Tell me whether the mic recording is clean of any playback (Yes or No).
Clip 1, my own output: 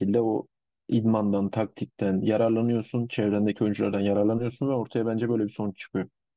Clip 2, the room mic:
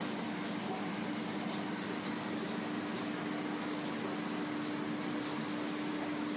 Yes